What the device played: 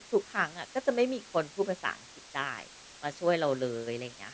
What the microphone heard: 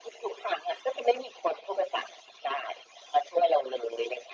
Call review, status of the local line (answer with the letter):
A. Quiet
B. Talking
A